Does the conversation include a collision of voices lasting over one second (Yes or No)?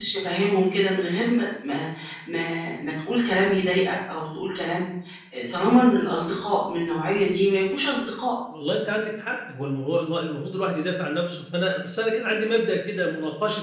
No